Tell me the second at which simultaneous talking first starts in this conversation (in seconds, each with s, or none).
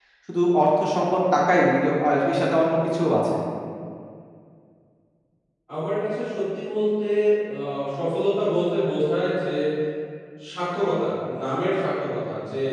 none